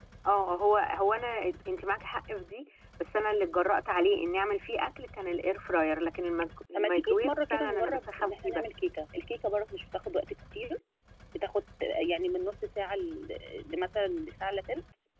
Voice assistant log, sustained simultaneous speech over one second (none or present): present